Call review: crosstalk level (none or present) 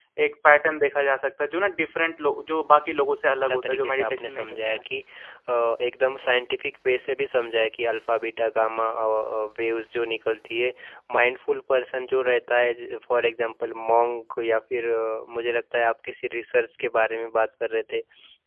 present